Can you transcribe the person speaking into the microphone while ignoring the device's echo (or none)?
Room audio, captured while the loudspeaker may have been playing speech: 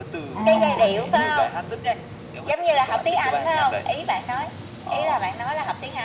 À, hiểu.